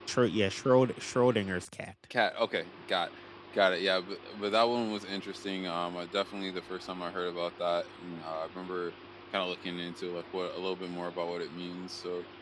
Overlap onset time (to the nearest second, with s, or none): none